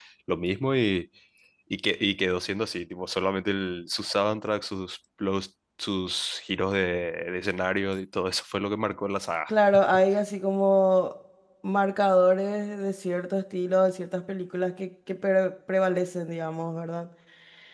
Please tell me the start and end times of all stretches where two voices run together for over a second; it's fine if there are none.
none

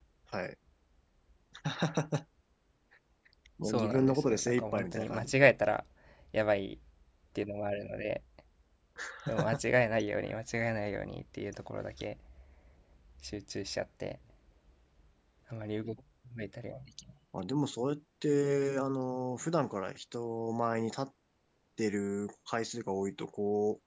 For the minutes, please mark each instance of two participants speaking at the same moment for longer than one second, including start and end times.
3.6-5.5

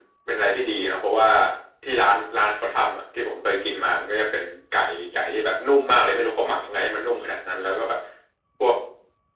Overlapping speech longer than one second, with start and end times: none

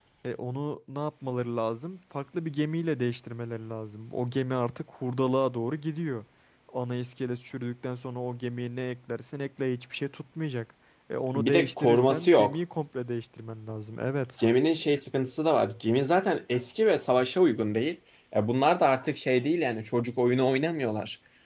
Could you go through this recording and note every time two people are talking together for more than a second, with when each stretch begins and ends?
11.3-12.6

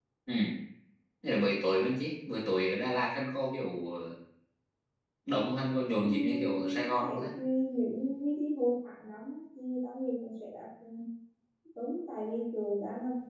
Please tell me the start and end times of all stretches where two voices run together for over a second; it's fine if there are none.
6.0-7.2

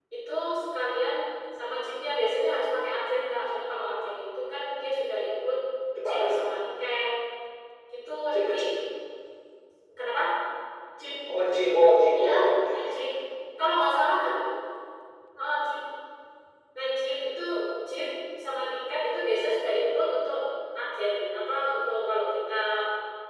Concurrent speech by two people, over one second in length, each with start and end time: none

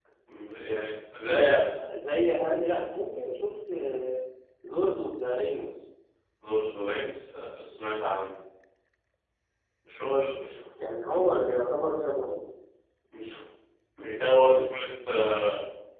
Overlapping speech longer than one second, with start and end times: none

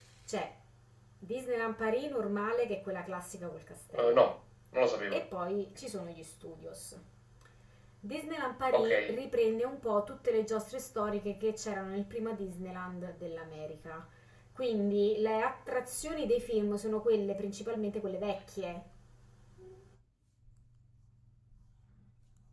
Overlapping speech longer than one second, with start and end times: none

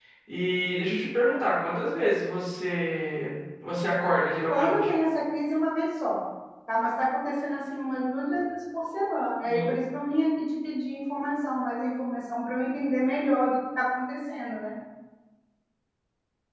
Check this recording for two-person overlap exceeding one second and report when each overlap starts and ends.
none

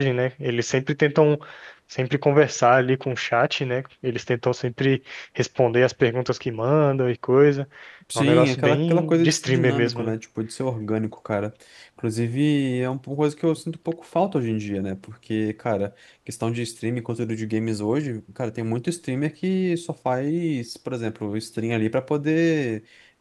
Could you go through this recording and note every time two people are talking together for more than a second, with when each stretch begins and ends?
8.2-10.1

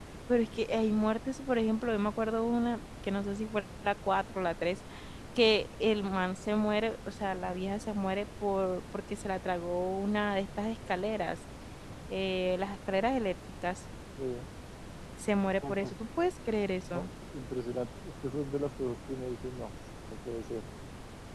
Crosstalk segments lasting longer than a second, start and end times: none

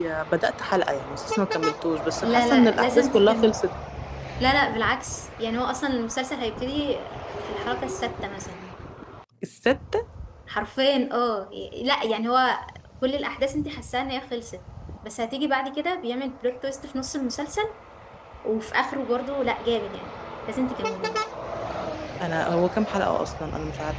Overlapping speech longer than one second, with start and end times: 2.2-3.5

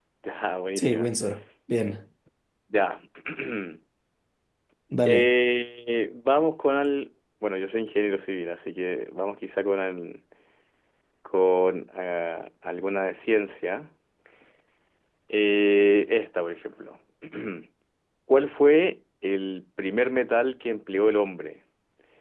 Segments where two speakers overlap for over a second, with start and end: none

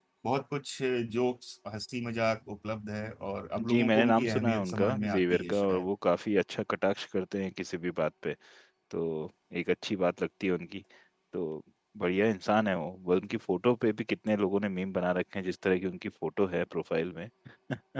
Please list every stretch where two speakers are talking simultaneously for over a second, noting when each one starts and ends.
3.7-5.9

